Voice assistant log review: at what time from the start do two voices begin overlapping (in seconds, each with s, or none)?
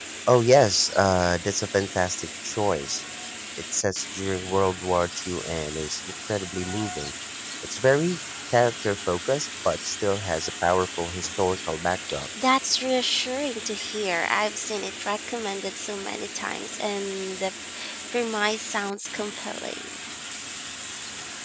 none